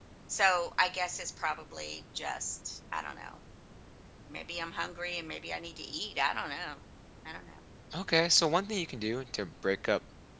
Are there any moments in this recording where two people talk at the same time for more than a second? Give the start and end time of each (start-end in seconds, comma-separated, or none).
none